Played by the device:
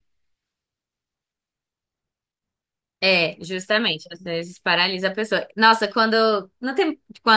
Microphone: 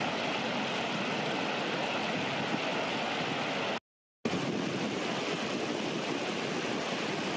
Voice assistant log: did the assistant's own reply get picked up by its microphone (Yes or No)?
No